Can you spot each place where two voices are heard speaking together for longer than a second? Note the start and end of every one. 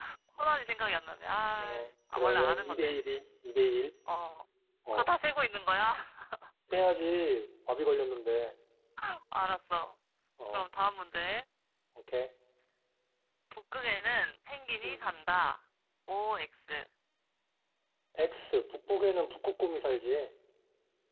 1.6-2.9

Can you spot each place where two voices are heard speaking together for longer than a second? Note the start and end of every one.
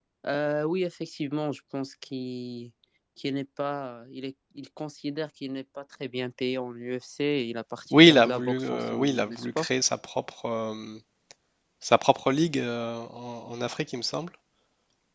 7.9-9.7

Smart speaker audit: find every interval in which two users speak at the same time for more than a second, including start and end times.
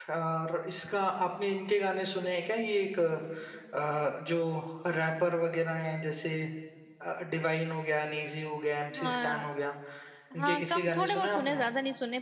10.4-11.6

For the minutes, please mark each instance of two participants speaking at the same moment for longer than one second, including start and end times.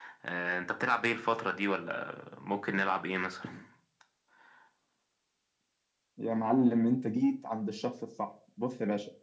none

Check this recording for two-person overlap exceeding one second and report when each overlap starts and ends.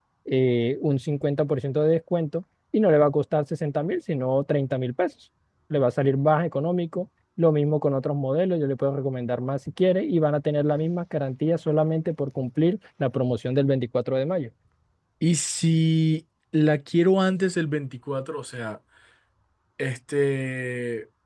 none

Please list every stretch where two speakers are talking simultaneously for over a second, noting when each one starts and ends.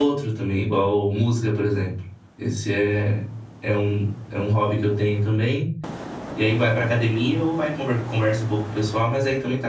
none

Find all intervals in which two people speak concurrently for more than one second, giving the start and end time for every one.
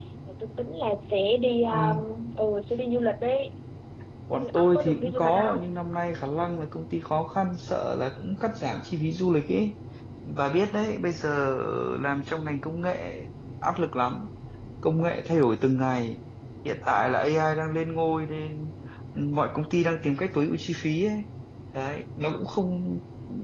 4.3-5.6

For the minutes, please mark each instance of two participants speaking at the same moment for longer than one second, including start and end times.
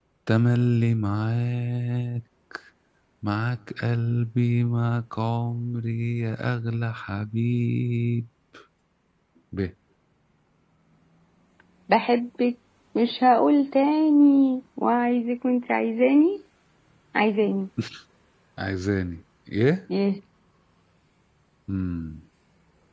none

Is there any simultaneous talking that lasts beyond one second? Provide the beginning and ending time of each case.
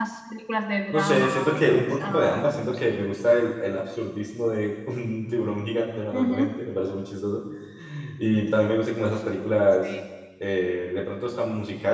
0.9-2.9

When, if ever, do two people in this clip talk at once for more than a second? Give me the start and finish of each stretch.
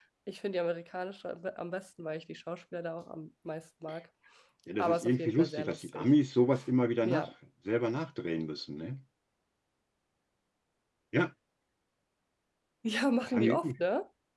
4.8-6.0

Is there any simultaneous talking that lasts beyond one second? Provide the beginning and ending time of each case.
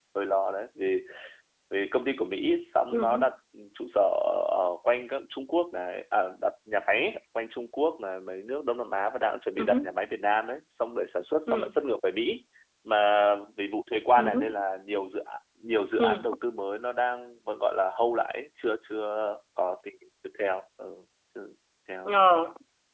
none

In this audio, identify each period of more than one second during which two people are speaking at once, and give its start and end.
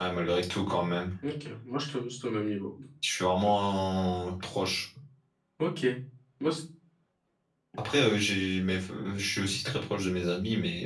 none

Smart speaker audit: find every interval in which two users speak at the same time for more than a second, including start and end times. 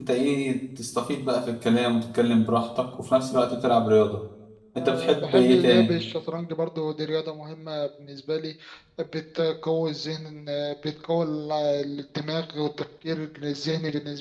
4.8-6.0

